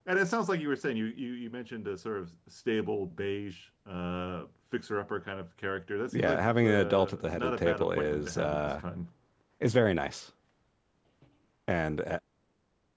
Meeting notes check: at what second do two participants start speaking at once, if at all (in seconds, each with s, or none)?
6.0 s